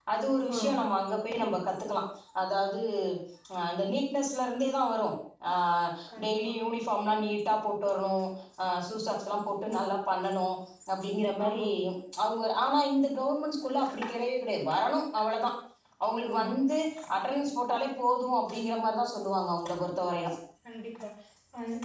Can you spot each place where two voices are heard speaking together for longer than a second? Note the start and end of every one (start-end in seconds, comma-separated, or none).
none